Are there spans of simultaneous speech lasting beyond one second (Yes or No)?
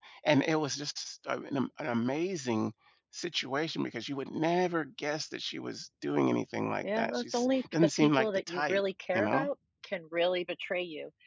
Yes